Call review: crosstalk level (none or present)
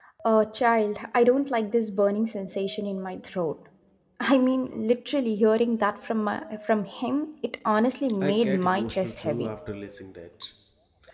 present